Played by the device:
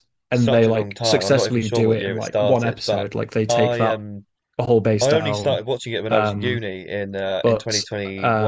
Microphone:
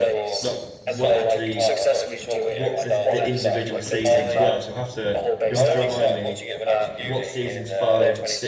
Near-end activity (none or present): present